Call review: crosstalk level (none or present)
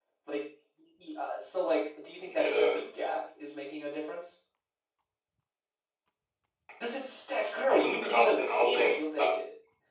present